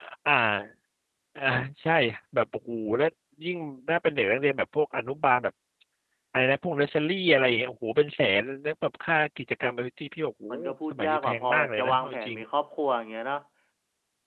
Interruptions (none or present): present